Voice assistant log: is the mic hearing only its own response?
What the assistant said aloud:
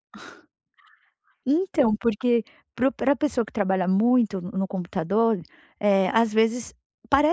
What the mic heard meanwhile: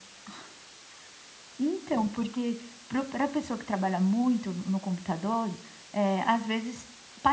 Yes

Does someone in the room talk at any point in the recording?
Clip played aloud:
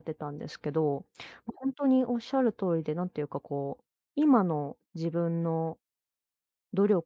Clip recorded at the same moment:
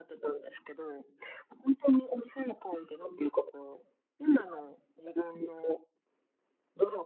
No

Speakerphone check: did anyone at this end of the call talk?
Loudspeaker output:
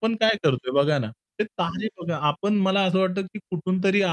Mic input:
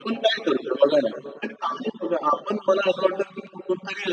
No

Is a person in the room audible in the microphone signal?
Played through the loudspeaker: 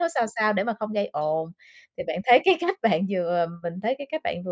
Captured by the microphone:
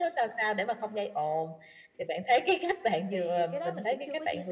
Yes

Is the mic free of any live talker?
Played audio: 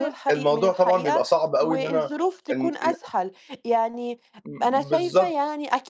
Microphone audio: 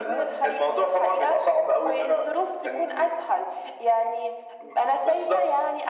Yes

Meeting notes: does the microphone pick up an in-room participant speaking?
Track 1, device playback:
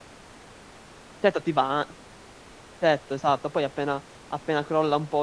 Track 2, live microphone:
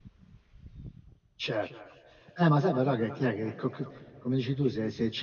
Yes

